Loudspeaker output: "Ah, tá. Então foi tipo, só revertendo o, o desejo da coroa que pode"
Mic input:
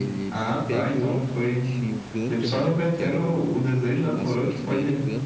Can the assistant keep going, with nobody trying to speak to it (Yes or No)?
No